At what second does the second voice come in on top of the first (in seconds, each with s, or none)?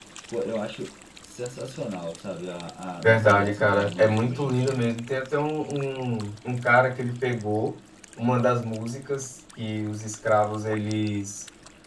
3.0 s